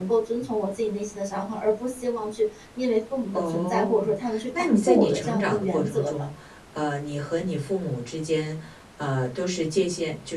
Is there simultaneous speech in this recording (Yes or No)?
Yes